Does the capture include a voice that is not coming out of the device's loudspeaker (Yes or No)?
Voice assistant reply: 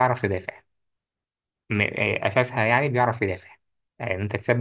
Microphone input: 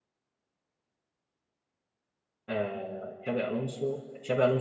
Yes